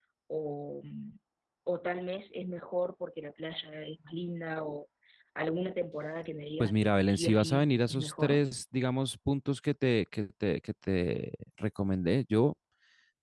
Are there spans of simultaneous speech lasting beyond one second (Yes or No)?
Yes